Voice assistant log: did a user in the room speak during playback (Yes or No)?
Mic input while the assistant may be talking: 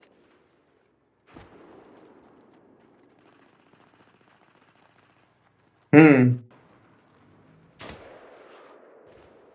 Yes